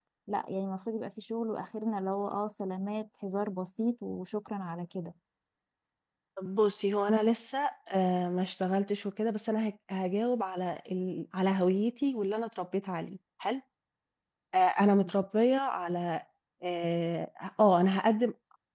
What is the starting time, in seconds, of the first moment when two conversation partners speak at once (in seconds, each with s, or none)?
none